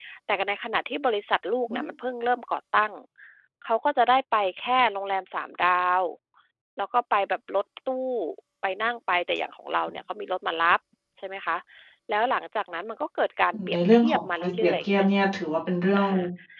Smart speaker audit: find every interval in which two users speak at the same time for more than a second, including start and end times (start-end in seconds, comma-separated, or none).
13.5-15.0